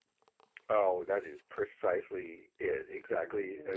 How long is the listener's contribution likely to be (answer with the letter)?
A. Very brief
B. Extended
B